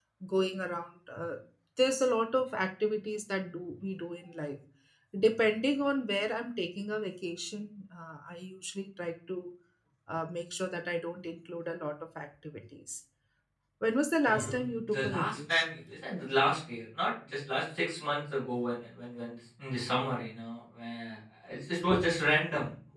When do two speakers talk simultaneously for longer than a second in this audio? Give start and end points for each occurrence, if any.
14.3-15.6

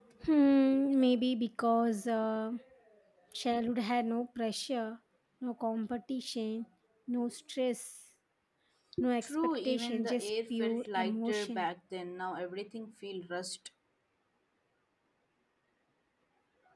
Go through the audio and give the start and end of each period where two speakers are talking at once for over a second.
9.2-11.7

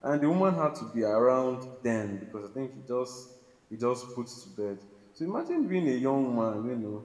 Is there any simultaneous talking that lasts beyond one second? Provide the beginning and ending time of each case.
none

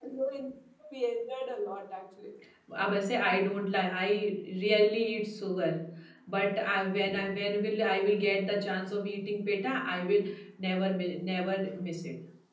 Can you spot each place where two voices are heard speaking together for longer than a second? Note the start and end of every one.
none

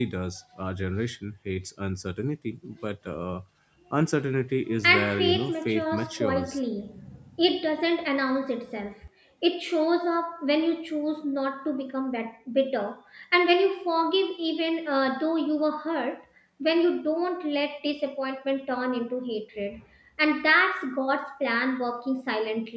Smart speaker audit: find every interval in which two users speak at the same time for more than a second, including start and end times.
4.8-6.6

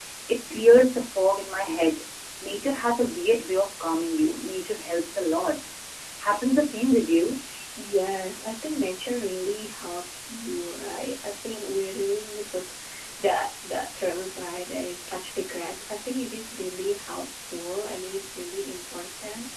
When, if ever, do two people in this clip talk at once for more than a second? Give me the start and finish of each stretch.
none

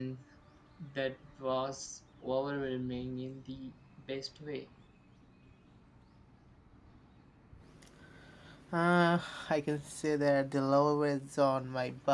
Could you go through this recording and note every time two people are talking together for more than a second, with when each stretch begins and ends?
none

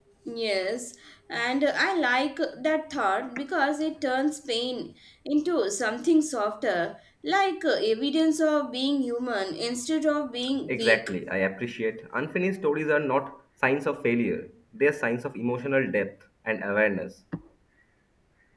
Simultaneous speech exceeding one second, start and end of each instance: none

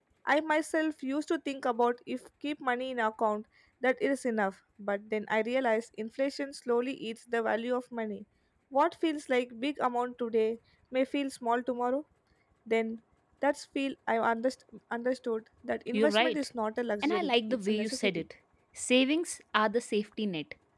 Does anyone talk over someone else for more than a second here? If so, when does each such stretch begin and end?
17.0-18.2

